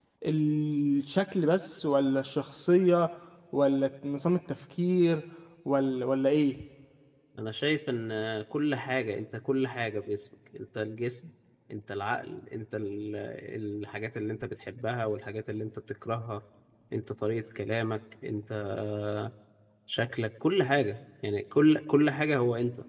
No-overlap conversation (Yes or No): Yes